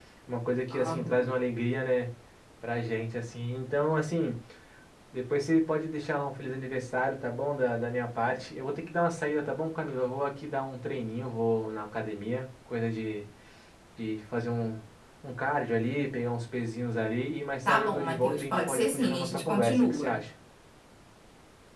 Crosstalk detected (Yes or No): Yes